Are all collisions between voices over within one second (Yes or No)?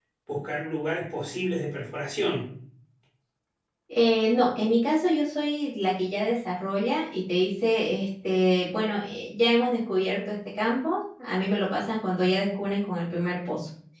Yes